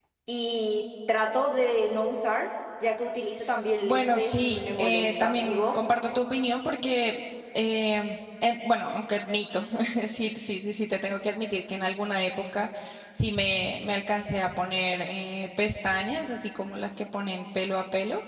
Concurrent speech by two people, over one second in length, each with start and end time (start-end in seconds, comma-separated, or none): 3.8-5.8